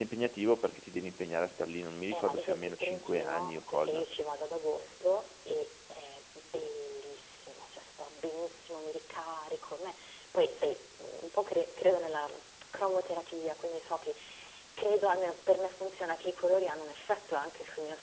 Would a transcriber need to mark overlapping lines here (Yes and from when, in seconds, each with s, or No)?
Yes, from 2.1 s